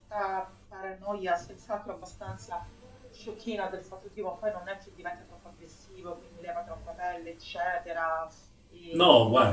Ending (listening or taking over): taking over